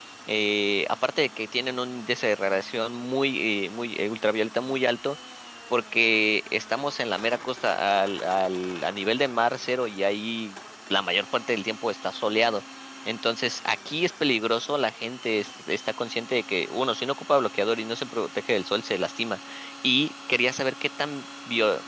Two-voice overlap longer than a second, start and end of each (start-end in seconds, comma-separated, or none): none